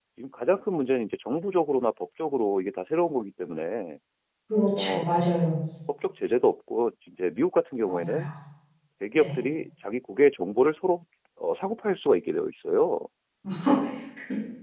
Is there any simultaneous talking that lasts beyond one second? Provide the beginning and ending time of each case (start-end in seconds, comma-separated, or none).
none